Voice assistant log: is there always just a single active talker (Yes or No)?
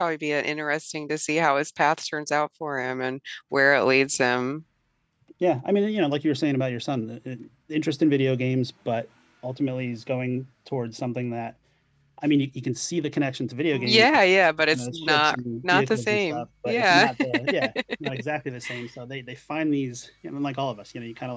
No